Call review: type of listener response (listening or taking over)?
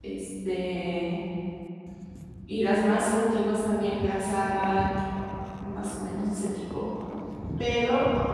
listening